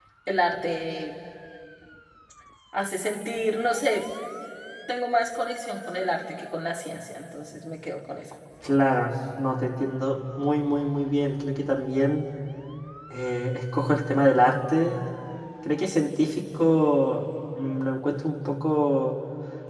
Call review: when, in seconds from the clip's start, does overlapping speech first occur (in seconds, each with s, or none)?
none